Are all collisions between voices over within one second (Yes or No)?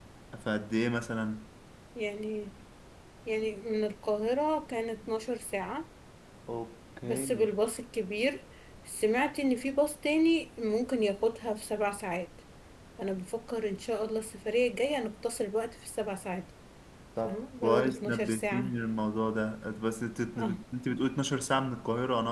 No